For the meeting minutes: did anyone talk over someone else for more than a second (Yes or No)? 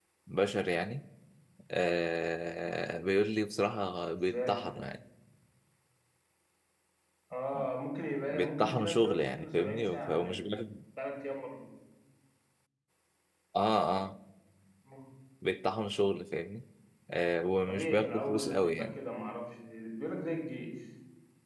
Yes